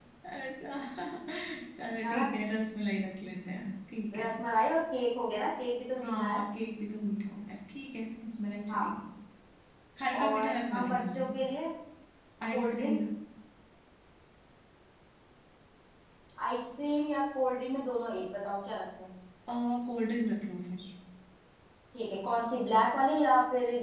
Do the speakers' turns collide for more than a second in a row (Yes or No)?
Yes